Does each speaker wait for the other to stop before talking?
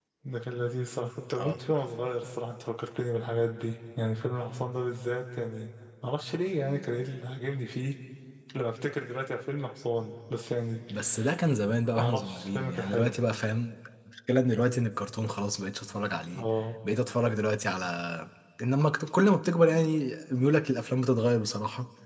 No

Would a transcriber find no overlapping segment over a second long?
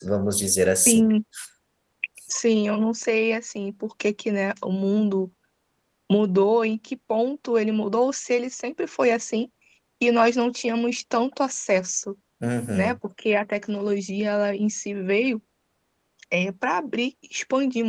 Yes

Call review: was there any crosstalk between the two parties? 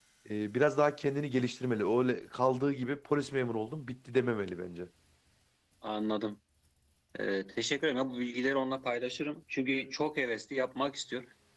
No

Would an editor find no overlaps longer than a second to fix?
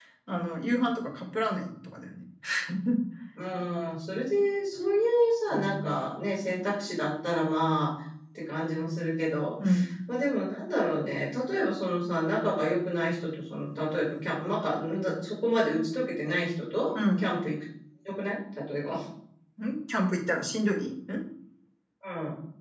Yes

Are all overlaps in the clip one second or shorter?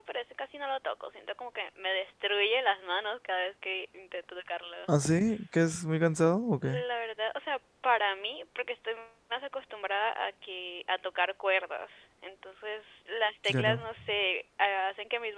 Yes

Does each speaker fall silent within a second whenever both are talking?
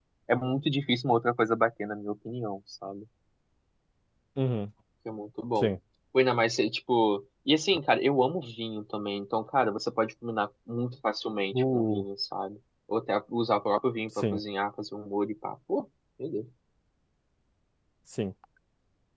Yes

